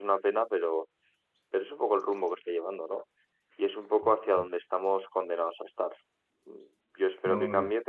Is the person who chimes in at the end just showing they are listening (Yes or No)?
Yes